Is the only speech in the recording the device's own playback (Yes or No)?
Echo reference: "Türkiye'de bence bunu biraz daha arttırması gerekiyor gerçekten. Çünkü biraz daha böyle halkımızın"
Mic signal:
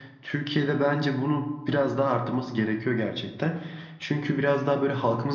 Yes